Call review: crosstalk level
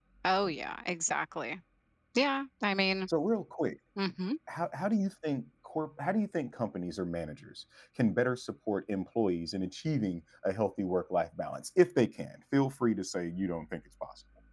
none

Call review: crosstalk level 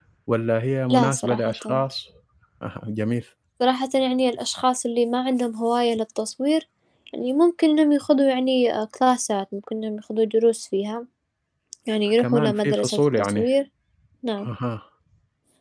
present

